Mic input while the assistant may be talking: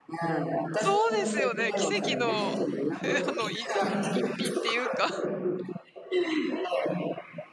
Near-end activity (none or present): present